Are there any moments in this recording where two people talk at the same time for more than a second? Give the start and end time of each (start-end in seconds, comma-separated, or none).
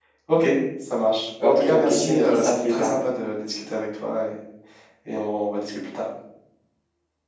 1.4-2.9